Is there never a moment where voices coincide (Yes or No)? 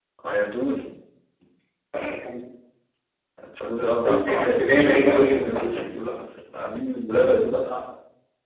No